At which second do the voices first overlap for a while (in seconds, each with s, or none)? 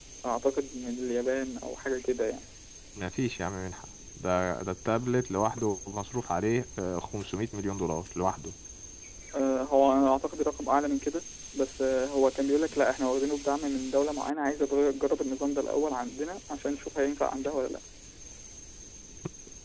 none